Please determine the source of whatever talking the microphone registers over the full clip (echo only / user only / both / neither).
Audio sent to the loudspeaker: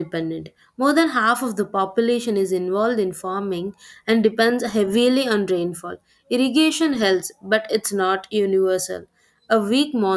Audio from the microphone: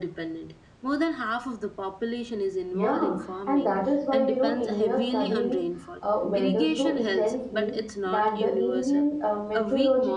both